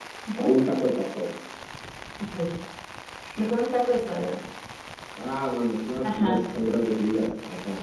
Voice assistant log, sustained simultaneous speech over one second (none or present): none